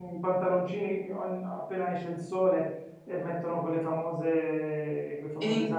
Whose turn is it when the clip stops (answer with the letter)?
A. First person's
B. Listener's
A